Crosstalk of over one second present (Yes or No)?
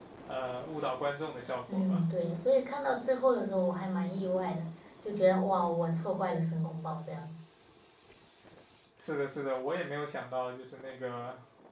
No